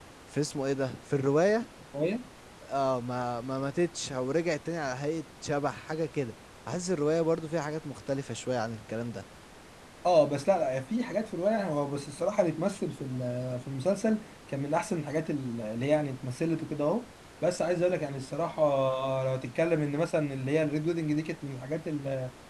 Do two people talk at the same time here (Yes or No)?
No